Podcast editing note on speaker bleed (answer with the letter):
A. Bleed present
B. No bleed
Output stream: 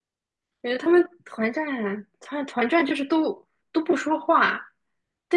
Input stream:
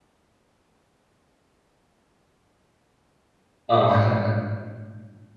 B